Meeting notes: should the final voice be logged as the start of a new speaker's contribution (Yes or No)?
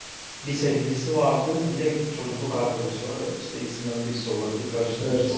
Yes